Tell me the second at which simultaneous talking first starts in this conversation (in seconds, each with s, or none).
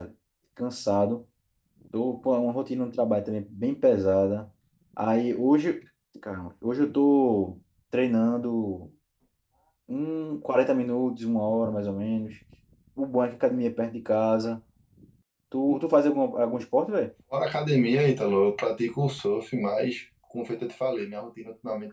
none